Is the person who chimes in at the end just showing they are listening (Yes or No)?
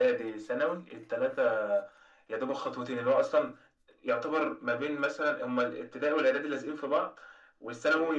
Yes